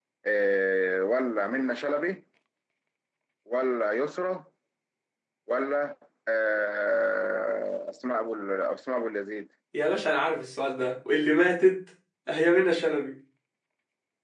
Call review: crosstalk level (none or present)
none